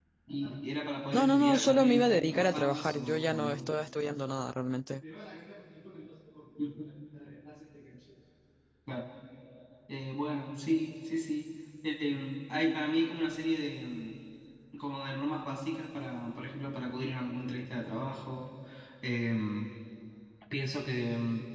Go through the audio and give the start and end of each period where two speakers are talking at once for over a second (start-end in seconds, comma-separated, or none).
1.1-3.8